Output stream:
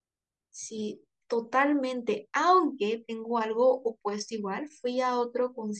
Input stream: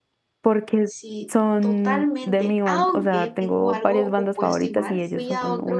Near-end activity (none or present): present